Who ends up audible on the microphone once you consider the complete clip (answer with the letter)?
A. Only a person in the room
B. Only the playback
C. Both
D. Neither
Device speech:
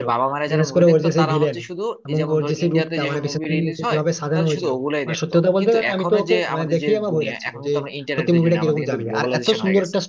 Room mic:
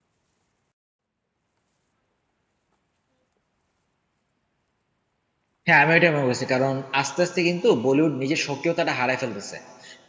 A